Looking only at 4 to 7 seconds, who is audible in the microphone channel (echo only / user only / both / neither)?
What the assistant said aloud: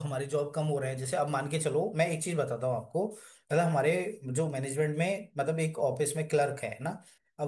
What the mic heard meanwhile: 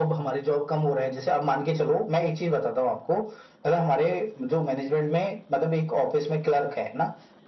echo only